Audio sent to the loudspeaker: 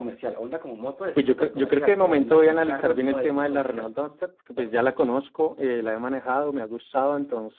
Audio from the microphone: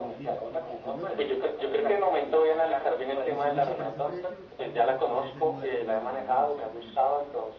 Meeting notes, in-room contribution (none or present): present